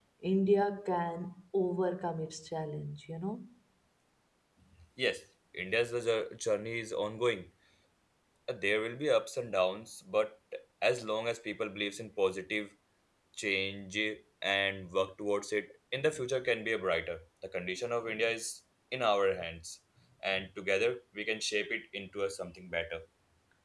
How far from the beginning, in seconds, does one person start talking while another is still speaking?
none

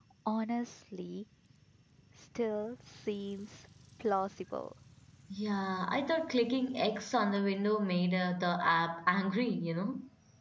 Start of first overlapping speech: none

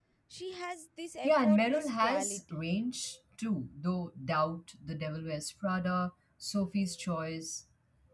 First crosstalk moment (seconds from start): 1.2 s

